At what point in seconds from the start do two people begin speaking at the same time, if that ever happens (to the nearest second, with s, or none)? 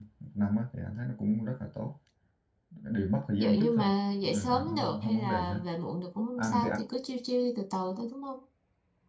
3 s